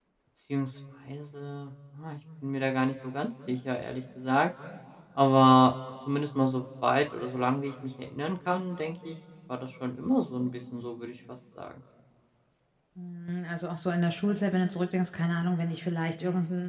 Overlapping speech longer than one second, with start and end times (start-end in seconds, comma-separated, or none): none